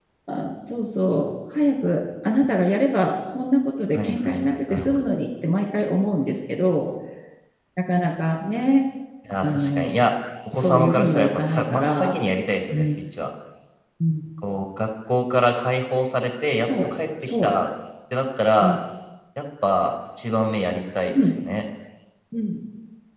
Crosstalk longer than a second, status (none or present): present